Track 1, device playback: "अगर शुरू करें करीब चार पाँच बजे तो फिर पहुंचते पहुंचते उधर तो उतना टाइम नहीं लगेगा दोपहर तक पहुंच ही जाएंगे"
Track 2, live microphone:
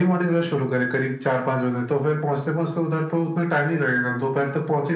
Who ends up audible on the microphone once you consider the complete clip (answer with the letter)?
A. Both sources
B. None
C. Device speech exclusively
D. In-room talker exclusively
C